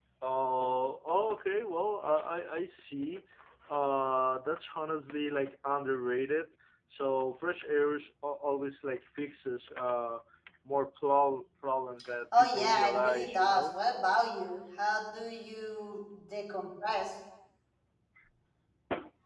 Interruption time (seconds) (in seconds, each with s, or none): 12.3 s